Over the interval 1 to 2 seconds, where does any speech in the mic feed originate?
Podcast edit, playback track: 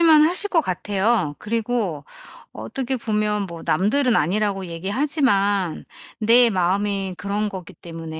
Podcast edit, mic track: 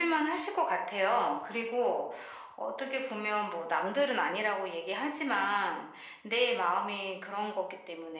echo only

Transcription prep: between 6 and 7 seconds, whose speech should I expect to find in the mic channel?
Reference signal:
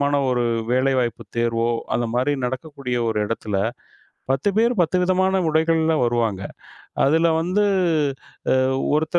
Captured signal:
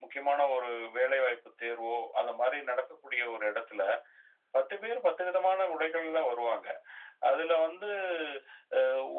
echo only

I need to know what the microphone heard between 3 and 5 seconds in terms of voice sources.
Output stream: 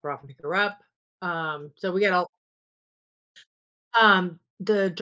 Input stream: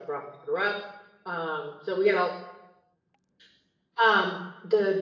echo only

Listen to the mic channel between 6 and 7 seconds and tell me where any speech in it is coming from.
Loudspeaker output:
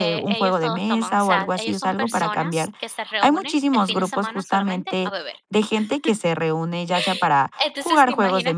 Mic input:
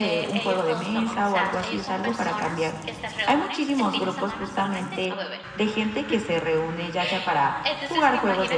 echo only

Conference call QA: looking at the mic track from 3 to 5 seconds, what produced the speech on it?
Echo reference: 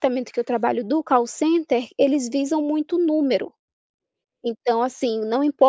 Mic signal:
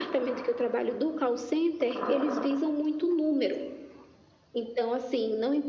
echo only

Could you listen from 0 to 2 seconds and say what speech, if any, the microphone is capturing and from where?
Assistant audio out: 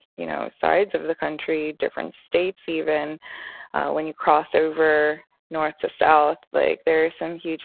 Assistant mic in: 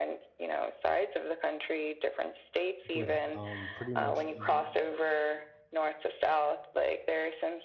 echo only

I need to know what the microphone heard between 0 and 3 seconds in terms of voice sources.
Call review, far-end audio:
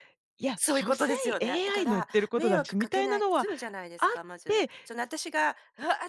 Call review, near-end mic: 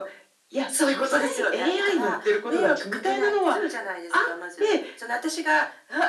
echo only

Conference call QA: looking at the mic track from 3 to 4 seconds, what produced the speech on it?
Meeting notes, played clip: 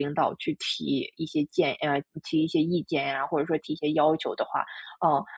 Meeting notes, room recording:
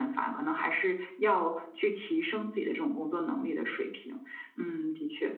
user only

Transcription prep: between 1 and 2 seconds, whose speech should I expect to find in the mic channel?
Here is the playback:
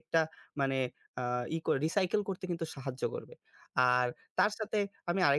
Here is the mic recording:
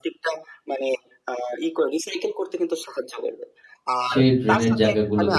echo only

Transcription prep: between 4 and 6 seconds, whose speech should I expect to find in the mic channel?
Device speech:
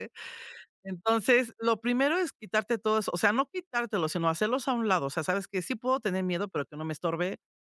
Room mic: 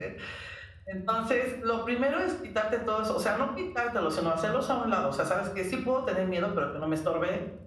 echo only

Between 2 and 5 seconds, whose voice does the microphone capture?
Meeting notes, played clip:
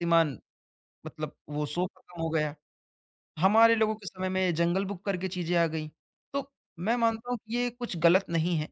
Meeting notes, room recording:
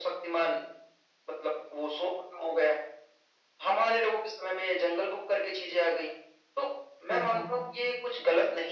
echo only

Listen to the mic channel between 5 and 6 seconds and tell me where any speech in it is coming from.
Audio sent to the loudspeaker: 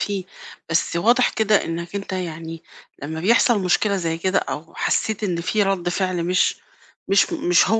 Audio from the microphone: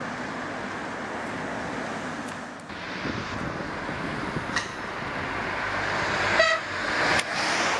neither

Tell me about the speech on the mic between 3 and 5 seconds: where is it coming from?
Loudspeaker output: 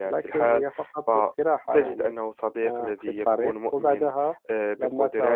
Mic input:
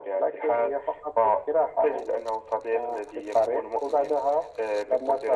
echo only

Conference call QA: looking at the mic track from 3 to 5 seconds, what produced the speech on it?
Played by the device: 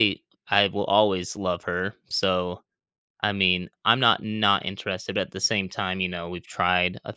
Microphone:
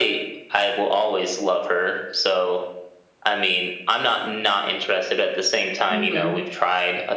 echo only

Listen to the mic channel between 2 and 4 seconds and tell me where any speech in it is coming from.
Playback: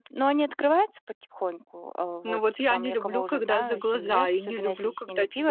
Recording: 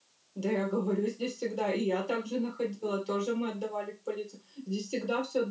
user only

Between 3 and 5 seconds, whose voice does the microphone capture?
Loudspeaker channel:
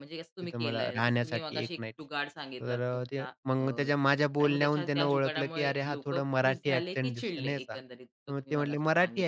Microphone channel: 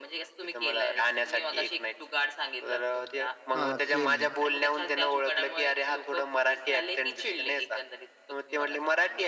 both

